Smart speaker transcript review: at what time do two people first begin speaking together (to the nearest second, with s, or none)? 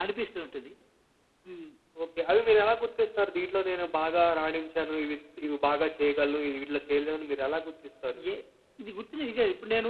none